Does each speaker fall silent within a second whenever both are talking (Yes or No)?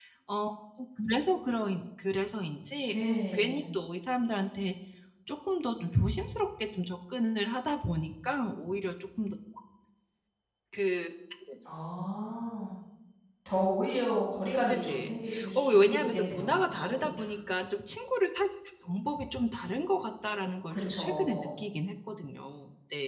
No